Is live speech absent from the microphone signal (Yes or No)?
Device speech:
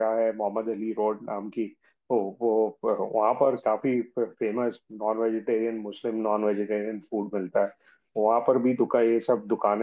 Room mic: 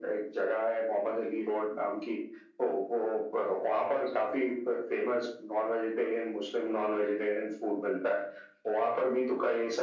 Yes